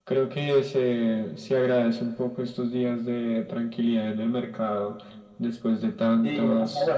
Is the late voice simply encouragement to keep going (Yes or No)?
No